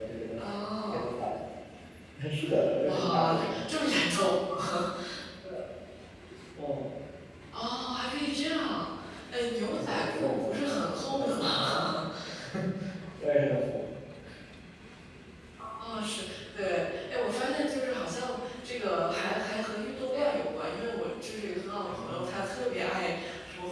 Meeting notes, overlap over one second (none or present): present